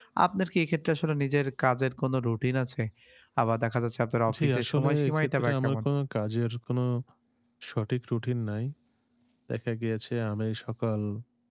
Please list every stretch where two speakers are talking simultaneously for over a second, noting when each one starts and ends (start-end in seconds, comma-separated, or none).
4.4-5.8